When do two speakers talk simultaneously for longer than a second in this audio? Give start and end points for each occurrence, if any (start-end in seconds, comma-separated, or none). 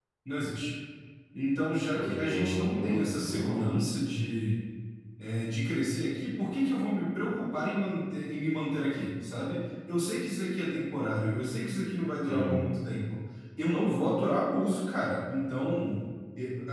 1.9-3.7